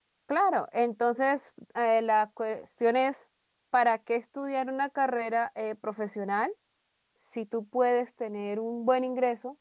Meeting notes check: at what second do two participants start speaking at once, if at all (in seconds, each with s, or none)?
none